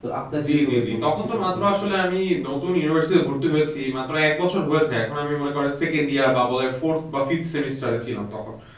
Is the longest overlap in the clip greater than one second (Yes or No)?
Yes